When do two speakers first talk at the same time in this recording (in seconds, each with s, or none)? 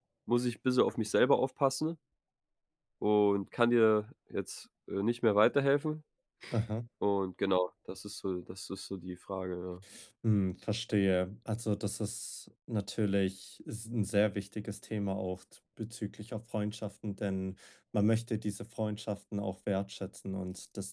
none